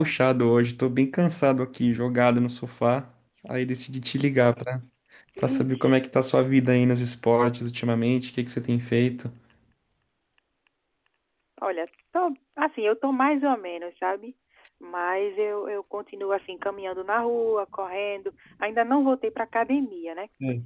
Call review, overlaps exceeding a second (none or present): none